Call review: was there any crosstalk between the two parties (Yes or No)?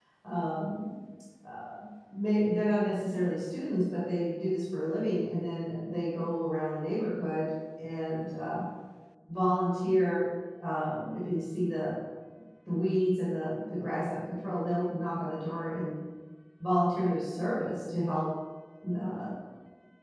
No